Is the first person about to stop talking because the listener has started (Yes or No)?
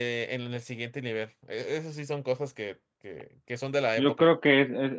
Yes